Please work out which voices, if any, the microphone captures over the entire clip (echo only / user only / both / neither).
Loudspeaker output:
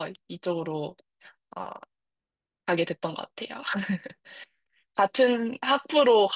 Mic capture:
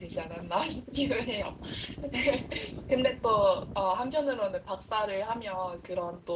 user only